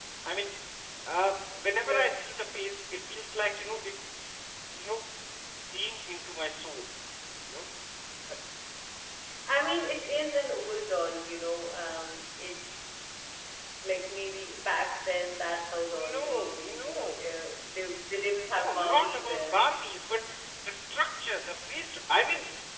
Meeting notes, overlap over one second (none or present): present